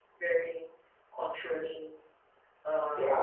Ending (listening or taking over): taking over